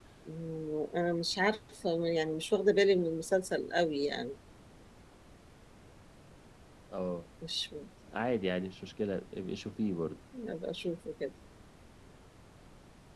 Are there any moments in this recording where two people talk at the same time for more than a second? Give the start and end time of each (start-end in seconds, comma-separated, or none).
none